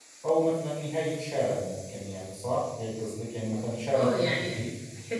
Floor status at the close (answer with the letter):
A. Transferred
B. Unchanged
A